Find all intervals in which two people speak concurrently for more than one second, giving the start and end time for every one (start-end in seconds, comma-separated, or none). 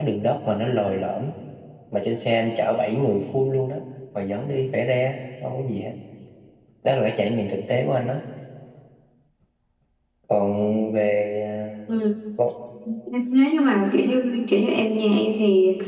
none